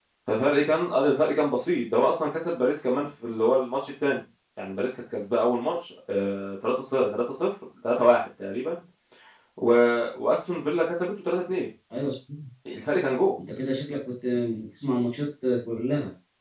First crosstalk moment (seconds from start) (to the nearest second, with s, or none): none